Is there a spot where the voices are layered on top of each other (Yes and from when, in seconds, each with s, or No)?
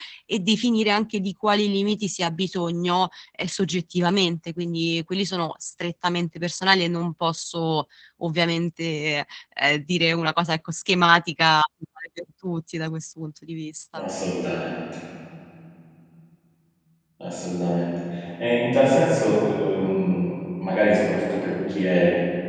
No